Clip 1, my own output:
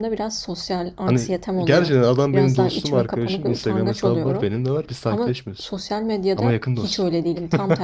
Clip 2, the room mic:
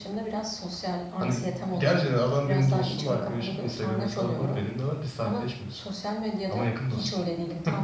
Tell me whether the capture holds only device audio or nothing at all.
Yes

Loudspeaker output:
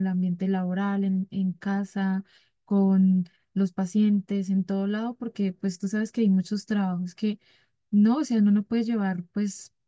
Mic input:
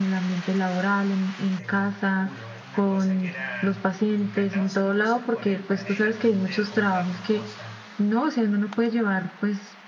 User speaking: Yes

